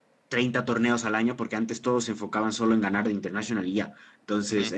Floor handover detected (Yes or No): No